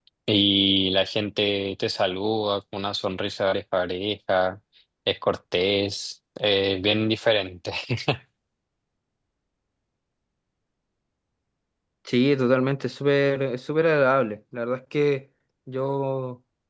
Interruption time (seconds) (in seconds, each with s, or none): none